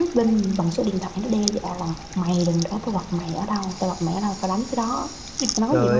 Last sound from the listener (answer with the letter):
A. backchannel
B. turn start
B